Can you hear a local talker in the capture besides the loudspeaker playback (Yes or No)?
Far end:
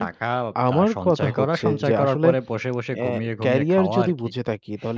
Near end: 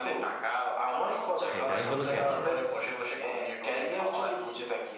Yes